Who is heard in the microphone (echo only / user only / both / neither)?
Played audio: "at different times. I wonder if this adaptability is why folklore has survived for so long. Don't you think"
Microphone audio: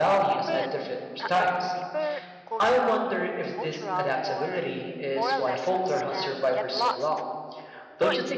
both